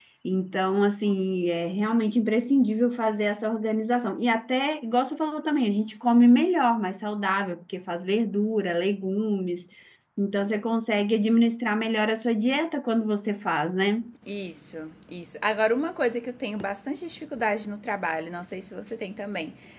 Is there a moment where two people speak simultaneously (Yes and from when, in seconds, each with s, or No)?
No